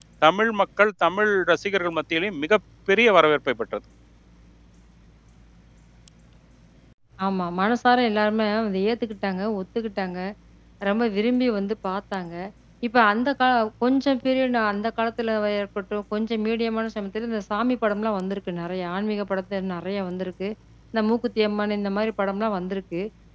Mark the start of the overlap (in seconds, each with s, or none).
none